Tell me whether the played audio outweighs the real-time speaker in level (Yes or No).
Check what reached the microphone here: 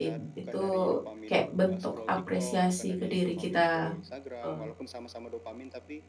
No